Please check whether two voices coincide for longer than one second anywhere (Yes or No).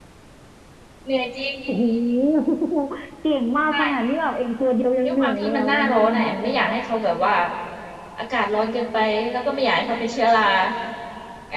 Yes